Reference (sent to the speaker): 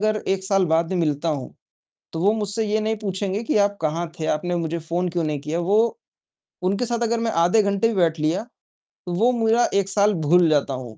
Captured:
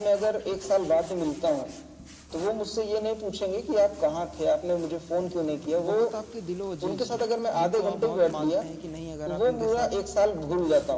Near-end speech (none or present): present